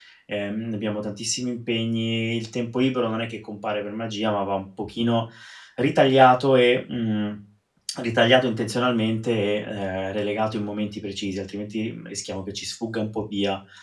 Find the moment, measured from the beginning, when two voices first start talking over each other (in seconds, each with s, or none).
none